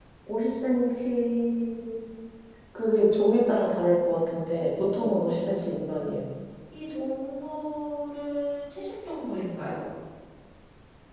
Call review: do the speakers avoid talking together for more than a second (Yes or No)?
No